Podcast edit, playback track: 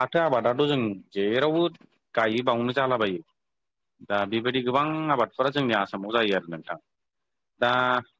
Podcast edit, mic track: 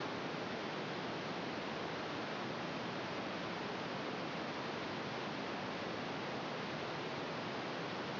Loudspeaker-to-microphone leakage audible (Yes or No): No